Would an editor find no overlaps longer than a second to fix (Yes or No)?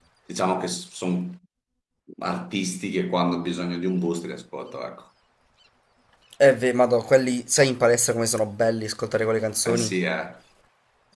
Yes